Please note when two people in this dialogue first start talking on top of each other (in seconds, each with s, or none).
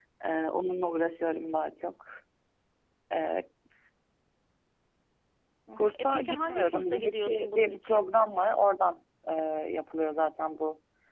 5.8 s